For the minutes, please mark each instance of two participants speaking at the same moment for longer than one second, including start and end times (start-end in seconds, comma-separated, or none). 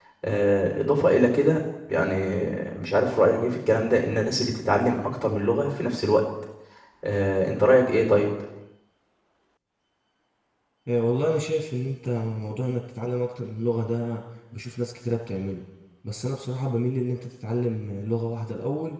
none